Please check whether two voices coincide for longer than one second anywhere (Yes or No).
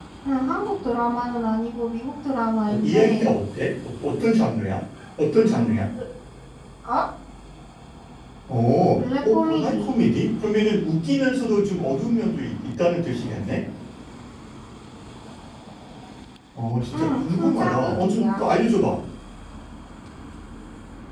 Yes